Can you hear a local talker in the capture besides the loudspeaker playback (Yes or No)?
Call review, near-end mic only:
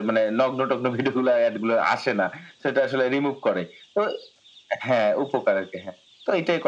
No